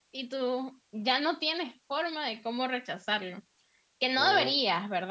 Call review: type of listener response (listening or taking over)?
listening